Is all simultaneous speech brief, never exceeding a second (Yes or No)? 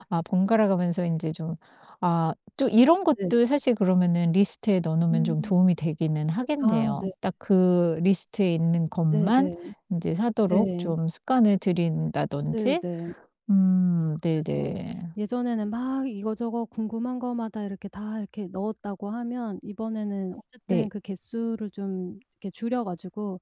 Yes